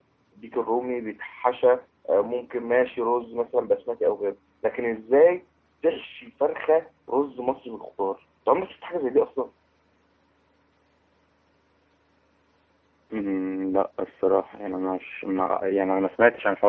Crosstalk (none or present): none